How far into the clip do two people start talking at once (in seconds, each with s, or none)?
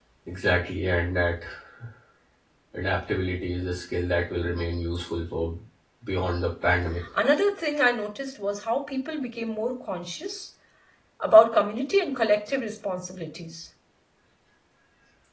none